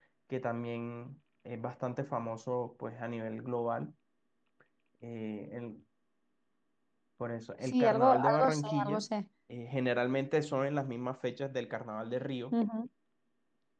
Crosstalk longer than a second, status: present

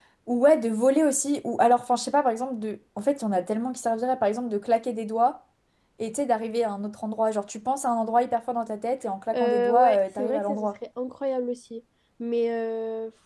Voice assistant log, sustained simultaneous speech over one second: present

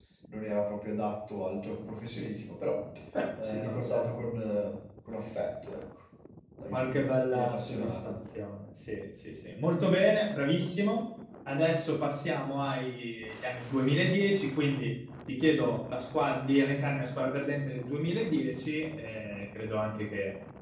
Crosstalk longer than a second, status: present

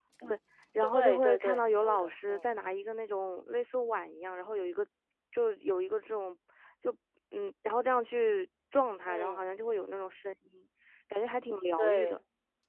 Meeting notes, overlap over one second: present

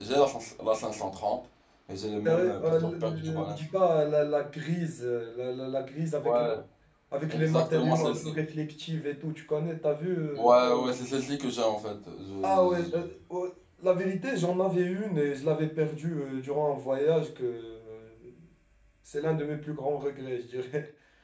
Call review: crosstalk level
present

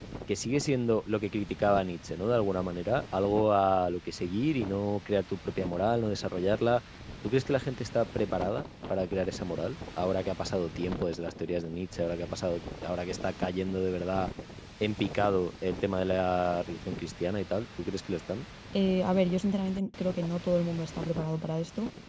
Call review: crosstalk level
none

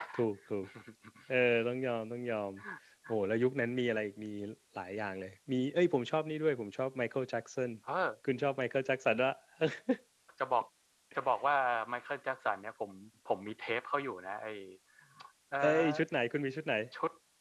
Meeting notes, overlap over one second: none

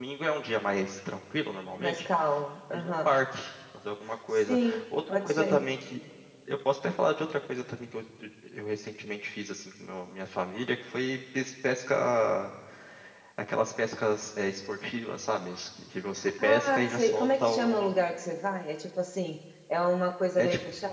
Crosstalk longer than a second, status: present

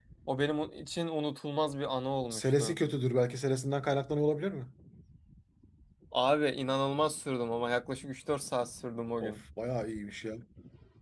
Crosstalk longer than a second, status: none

